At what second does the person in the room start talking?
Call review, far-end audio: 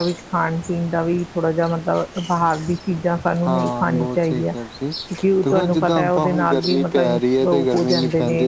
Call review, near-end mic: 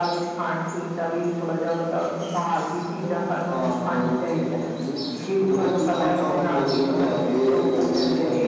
3.0 s

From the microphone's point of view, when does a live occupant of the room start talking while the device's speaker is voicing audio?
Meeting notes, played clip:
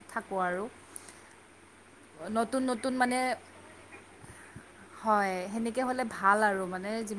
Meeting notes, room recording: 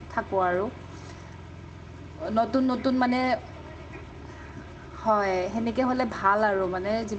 none

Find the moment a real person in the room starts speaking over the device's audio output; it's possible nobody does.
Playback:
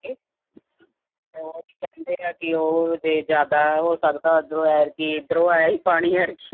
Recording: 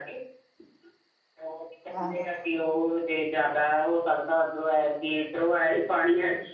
1.9 s

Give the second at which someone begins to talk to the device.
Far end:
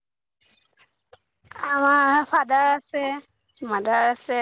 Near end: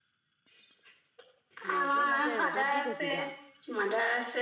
1.7 s

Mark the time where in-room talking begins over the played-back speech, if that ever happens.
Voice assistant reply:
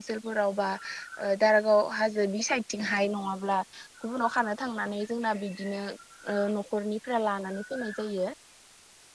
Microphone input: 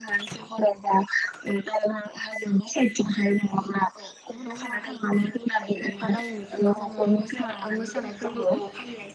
4.0 s

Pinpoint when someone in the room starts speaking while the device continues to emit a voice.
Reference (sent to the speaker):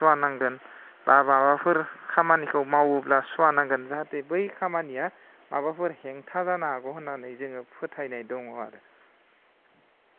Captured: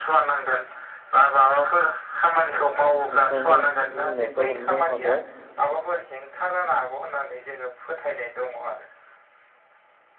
2.5 s

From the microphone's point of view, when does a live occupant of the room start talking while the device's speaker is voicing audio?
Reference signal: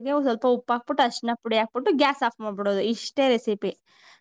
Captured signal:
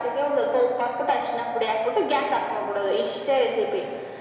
none

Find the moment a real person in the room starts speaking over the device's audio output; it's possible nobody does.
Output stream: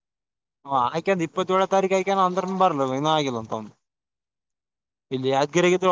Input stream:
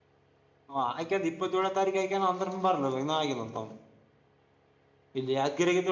none

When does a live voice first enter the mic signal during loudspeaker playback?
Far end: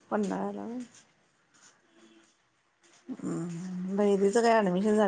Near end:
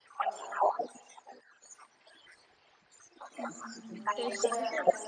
3.4 s

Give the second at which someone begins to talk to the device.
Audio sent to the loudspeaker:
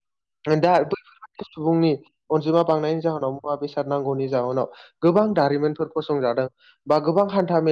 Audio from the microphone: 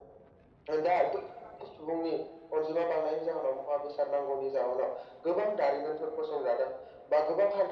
none

